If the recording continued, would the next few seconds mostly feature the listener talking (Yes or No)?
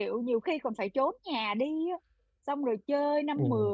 No